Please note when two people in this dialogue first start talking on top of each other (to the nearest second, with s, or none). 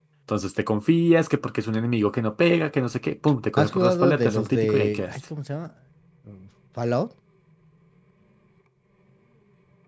4 s